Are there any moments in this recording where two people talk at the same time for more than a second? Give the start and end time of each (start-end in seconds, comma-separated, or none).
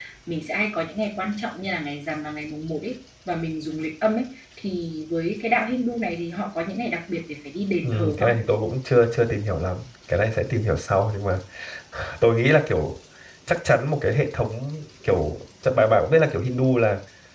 none